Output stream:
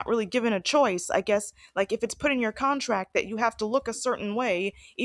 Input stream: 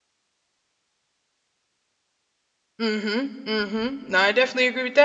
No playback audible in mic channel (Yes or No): Yes